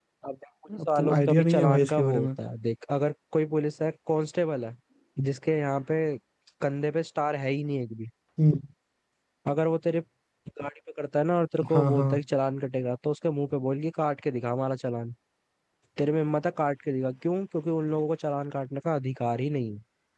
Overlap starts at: 0.8 s

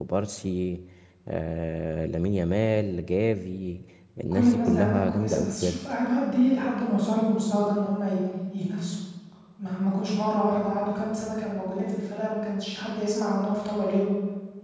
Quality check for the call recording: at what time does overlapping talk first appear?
4.3 s

